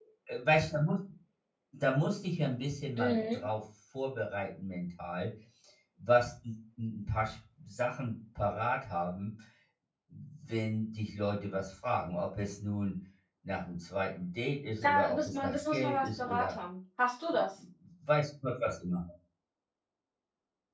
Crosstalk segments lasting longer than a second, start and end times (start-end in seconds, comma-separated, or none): 14.8-16.5